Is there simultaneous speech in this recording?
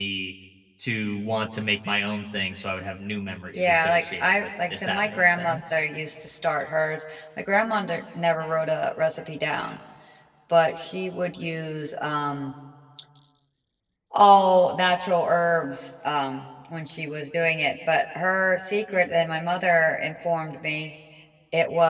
Yes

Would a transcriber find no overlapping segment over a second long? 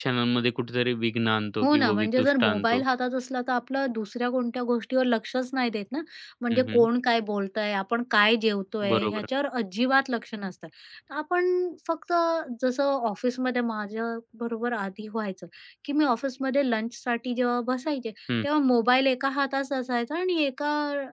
No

